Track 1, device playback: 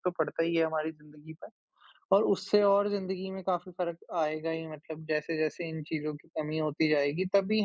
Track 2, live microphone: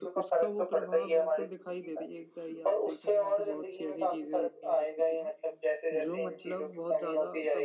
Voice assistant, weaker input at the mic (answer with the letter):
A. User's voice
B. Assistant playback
A